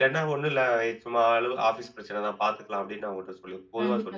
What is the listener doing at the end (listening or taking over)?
taking over